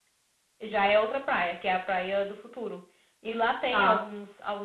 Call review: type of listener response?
listening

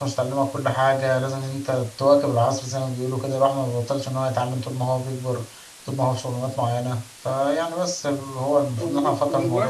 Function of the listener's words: taking over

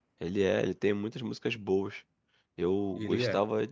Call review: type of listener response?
listening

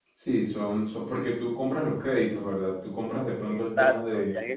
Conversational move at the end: taking over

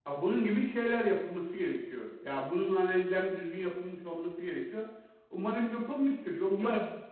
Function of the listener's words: listening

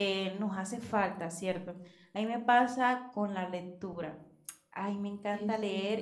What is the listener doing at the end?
listening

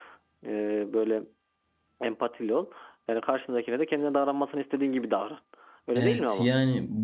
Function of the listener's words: taking over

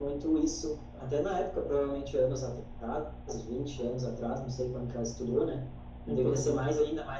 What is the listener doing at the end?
listening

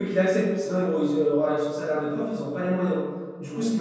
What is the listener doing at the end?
listening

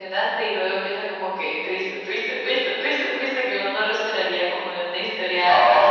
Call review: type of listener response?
taking over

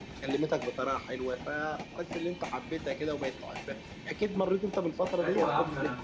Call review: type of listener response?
taking over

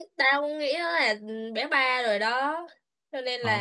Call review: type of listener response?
taking over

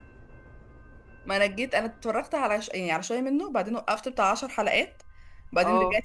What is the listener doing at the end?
listening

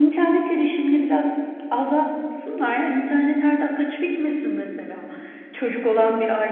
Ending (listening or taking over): listening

